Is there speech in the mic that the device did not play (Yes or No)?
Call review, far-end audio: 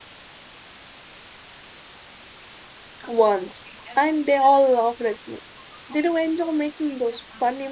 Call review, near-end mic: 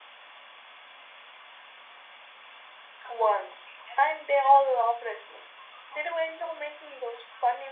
No